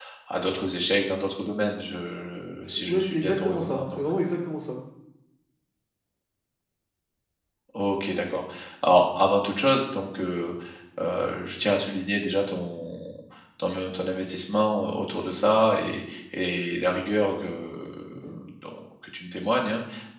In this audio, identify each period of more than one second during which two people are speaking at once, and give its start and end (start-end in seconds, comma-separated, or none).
2.6-4.0